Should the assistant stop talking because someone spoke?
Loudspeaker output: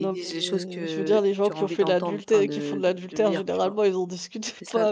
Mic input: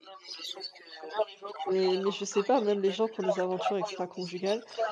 Yes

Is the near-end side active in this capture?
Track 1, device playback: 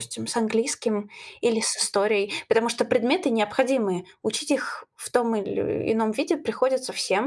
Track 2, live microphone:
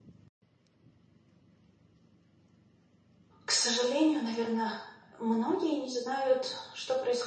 Yes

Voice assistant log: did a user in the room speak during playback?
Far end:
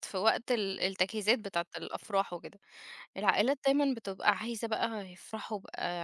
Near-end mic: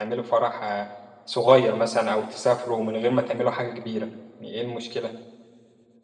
Yes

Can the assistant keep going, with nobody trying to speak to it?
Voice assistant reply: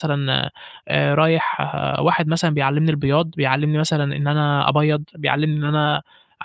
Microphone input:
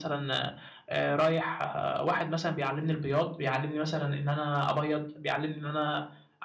Yes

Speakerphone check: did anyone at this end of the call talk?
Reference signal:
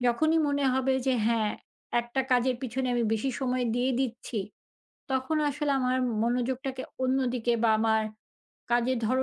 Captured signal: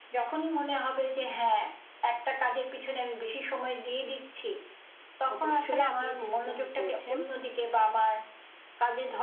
Yes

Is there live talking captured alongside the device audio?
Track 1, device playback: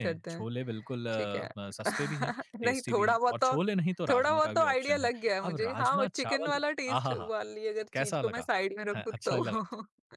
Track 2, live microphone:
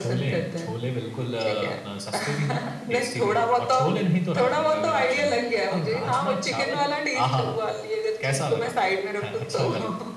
No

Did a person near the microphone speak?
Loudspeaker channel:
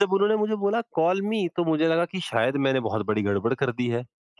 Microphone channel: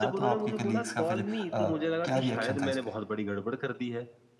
Yes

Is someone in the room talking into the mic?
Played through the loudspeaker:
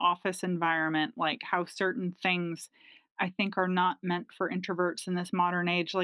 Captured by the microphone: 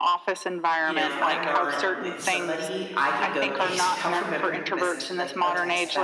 Yes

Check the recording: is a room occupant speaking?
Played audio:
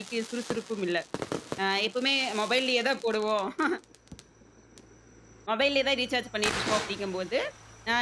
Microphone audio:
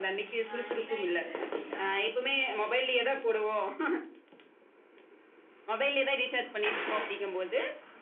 Yes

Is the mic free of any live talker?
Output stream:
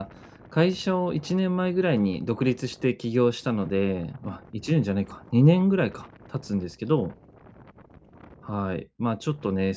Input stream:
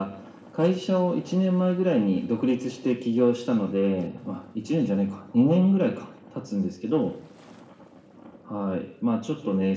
Yes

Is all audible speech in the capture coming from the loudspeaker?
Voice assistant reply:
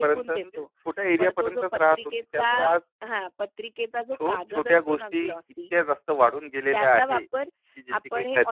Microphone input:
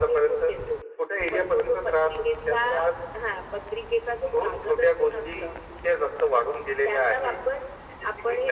Yes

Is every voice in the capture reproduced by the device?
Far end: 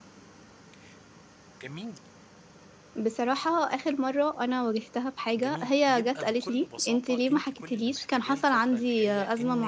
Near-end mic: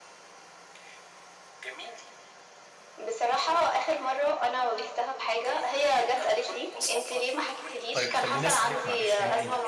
No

